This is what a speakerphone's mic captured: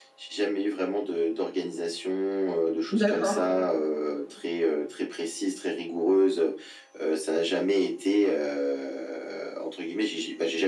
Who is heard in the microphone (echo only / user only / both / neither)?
both